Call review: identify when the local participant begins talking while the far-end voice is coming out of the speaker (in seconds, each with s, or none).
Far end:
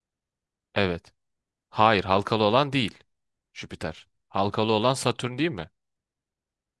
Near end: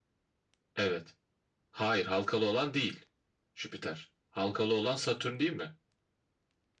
none